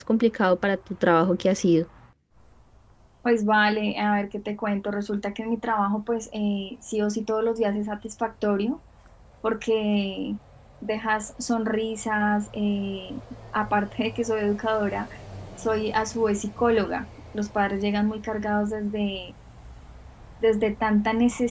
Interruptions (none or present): none